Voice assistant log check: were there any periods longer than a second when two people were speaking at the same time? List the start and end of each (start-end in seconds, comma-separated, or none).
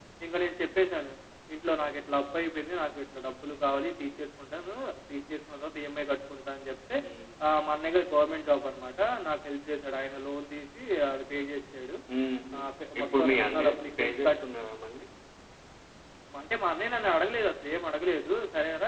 13.0-14.4